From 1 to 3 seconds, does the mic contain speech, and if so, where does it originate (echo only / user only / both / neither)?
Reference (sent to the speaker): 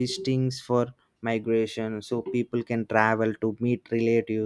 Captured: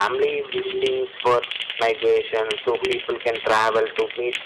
echo only